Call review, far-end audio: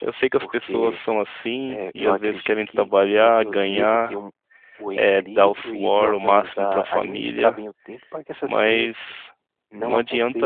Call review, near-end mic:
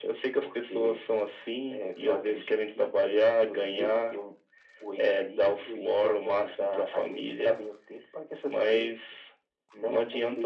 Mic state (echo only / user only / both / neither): echo only